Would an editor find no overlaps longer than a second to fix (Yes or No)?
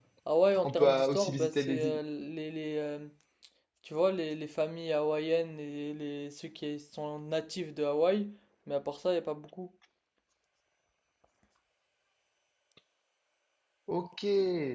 No